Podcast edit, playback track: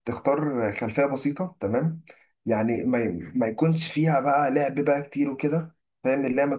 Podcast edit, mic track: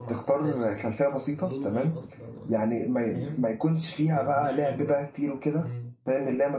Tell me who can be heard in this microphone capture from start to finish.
both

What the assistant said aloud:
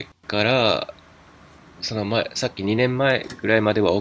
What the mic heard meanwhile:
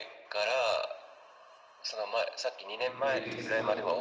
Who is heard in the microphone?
both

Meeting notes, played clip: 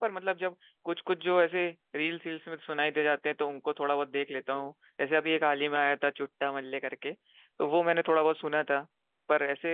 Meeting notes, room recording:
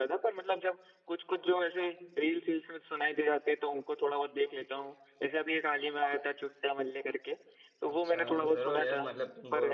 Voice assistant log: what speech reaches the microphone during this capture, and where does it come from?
both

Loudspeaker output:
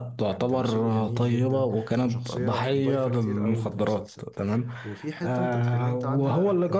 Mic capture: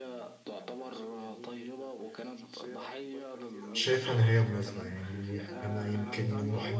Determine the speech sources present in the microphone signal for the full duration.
both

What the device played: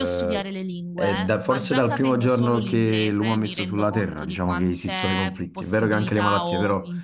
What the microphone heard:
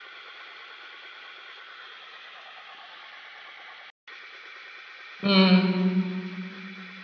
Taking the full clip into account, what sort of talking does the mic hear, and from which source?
user only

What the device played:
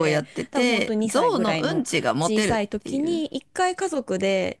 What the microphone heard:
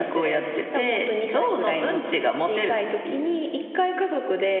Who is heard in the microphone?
echo only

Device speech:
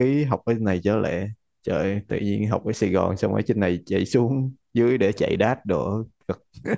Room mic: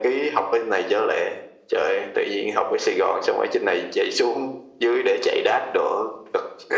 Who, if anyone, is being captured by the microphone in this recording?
echo only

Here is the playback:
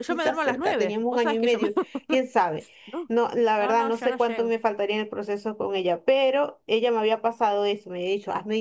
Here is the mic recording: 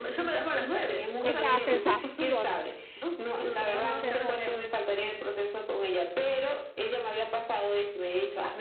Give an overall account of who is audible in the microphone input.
both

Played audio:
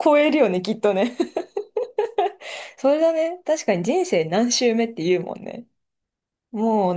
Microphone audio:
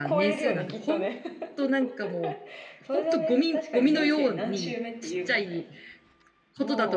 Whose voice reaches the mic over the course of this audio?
both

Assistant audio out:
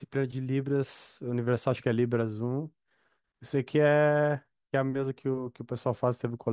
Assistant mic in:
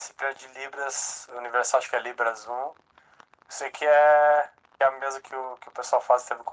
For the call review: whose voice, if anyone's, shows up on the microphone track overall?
echo only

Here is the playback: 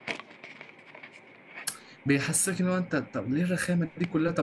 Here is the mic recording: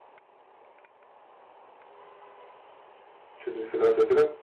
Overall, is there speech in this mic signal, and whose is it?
user only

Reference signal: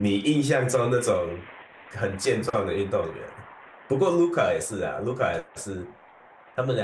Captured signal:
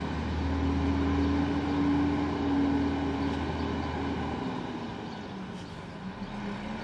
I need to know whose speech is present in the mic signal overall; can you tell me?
neither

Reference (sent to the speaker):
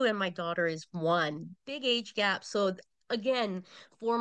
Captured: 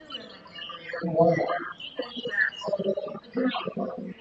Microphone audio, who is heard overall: echo only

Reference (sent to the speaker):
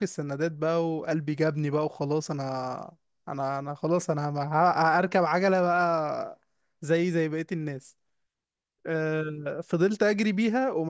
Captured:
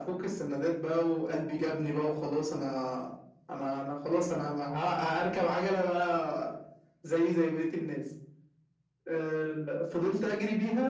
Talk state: echo only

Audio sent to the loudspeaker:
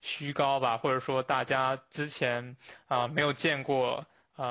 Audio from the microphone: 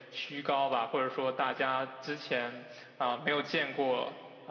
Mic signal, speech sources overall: echo only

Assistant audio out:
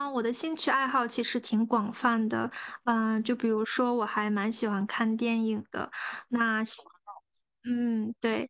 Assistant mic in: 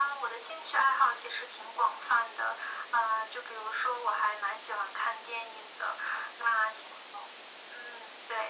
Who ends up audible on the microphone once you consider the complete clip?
echo only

